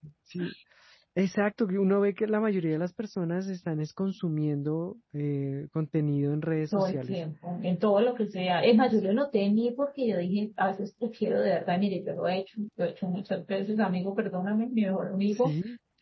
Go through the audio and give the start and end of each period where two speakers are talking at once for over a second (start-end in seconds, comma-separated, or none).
none